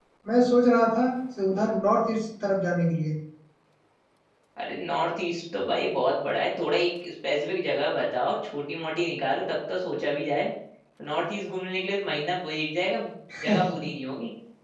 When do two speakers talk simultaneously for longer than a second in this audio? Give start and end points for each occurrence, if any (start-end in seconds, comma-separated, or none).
none